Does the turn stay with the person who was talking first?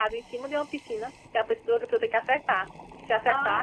No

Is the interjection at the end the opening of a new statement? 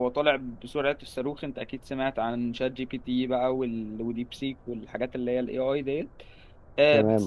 No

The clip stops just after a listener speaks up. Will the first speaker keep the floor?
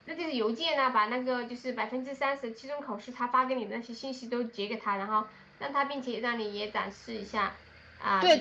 No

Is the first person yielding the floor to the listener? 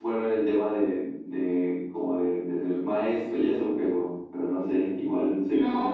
Yes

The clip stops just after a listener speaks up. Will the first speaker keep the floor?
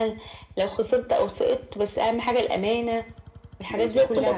No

